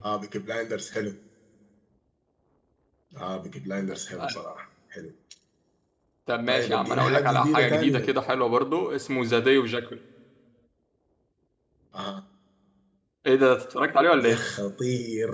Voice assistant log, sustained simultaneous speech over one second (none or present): present